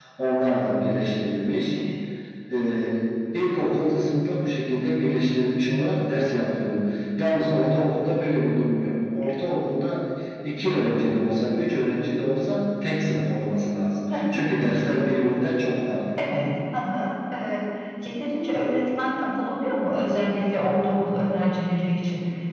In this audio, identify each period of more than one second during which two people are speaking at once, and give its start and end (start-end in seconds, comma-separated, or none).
none